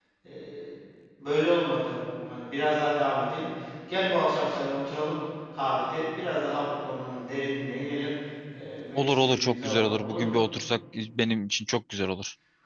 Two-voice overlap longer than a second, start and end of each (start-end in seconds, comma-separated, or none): 8.9-10.3